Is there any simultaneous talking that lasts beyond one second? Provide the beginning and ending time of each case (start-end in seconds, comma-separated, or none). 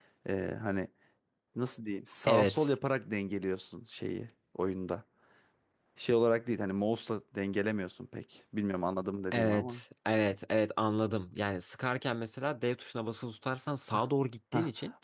none